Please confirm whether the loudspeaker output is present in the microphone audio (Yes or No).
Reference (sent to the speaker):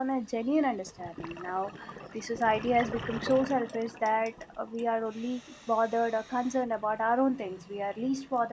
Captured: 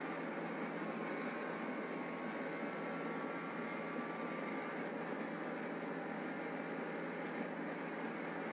No